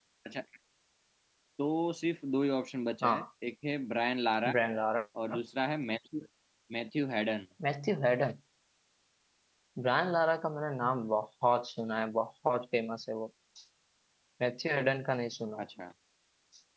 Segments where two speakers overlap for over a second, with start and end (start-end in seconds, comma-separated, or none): none